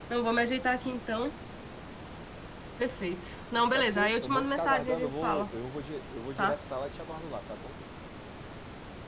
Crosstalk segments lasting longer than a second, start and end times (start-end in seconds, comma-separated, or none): 3.7-5.5